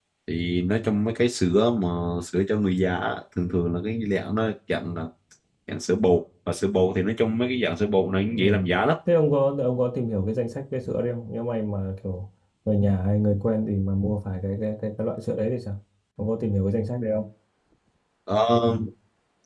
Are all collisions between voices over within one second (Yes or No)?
Yes